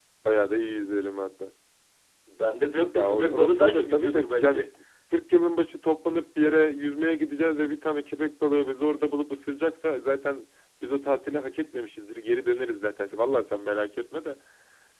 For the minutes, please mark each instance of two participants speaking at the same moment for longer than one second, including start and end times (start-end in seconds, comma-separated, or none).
2.9-4.7